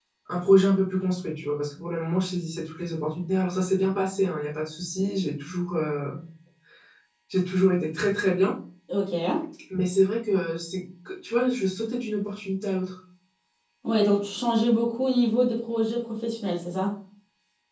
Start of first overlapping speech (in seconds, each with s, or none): none